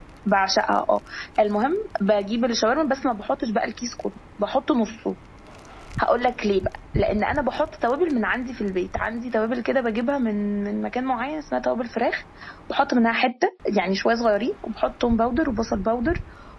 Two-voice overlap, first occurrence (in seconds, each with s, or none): none